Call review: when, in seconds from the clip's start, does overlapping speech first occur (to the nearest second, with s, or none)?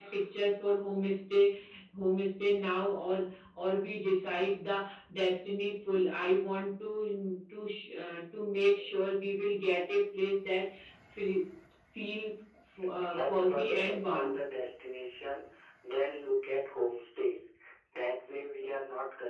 13 s